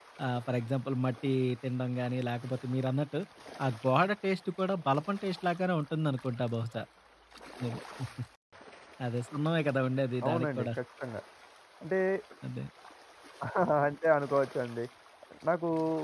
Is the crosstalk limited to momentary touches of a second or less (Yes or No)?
Yes